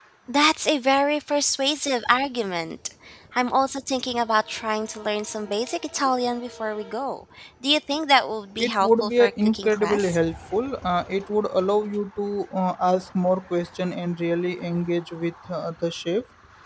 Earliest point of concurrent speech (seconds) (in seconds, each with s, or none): 8.6 s